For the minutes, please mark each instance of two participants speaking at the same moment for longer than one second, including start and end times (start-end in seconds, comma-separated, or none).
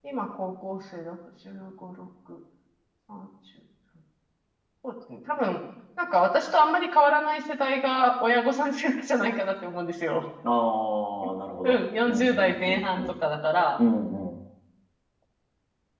11.6-13.1